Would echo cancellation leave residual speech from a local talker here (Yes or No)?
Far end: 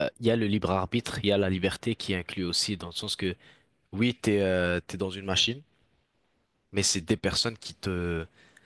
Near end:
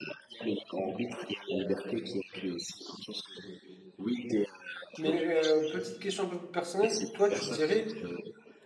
Yes